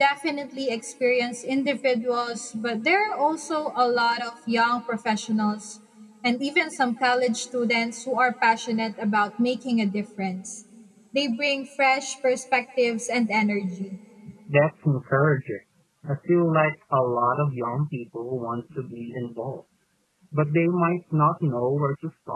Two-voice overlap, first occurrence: none

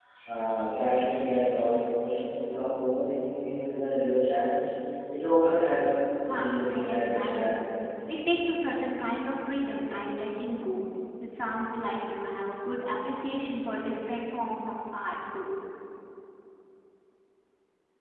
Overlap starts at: 6.2 s

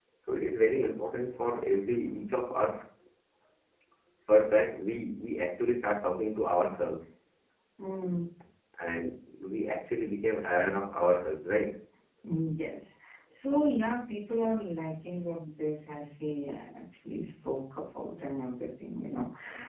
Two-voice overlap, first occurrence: none

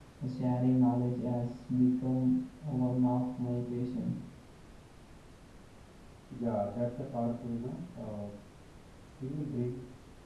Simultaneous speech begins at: none

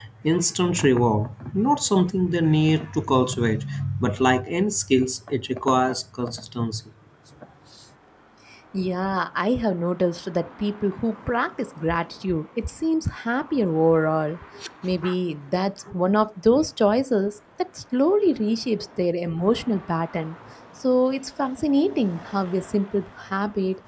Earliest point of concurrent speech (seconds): none

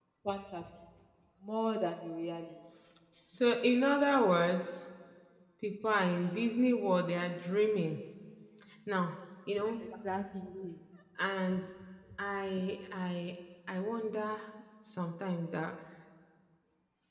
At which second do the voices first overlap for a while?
none

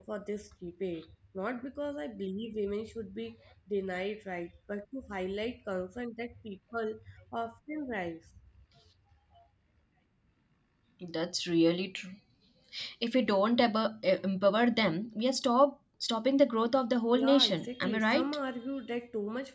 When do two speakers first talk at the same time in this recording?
17.1 s

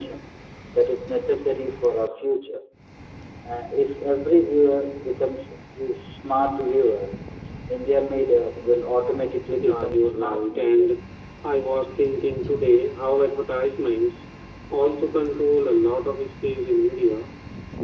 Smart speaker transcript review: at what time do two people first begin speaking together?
9.6 s

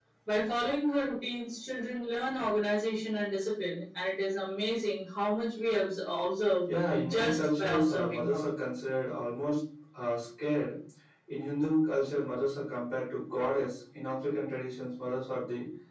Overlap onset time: 7.0 s

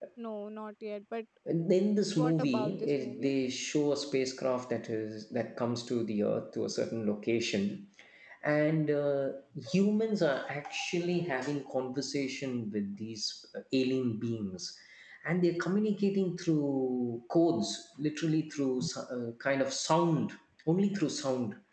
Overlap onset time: 2.0 s

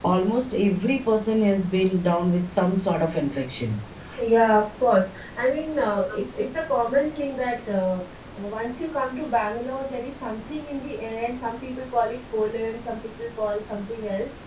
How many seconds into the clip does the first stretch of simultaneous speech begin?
none

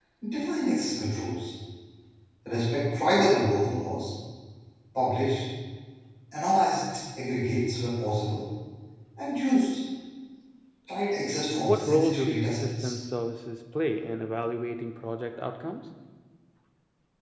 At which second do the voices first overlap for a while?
11.6 s

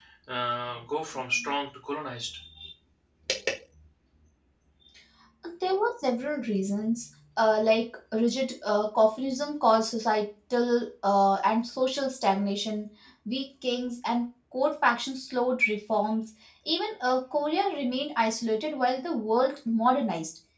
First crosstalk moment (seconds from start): none

